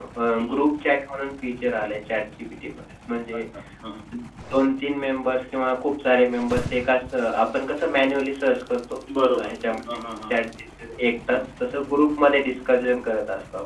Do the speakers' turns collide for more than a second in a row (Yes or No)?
No